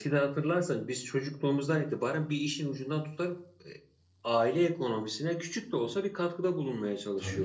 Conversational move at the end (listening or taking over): taking over